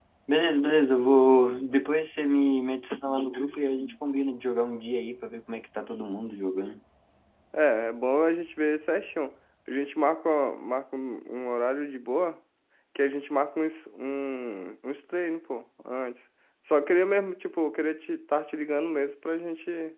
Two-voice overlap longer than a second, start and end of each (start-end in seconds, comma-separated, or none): none